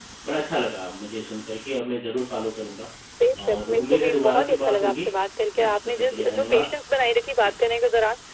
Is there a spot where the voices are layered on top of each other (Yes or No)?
Yes